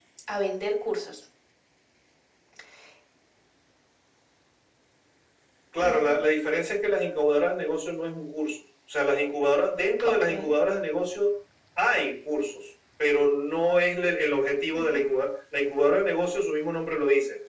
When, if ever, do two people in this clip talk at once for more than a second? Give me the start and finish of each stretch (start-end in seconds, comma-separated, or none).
none